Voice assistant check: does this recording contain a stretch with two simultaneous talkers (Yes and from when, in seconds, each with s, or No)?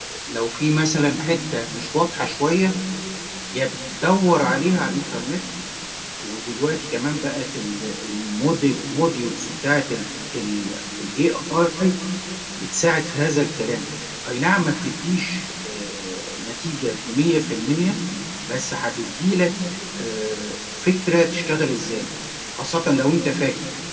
No